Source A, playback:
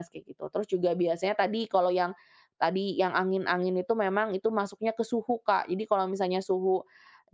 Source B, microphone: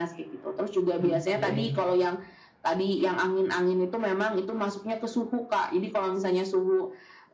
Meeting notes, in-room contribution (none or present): present